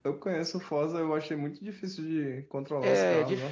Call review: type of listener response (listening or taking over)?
taking over